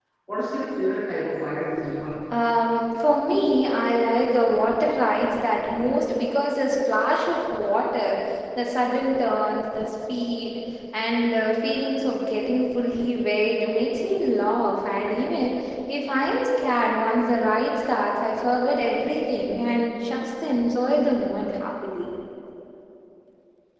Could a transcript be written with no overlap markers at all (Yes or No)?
Yes